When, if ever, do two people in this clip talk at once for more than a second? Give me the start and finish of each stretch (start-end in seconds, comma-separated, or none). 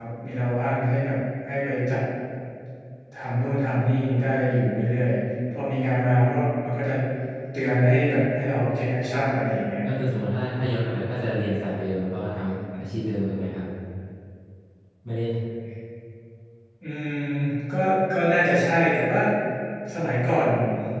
none